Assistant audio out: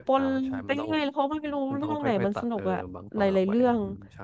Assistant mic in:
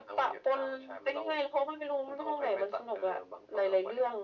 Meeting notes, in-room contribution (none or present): none